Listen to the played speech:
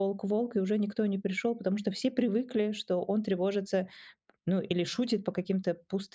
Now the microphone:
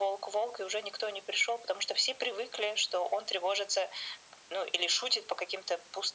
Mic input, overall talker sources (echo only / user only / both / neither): echo only